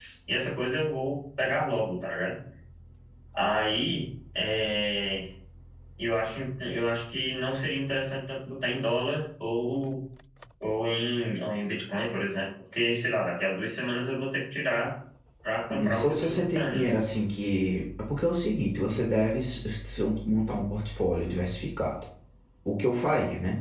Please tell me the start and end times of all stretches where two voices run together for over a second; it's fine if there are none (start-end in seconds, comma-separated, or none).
15.7-16.9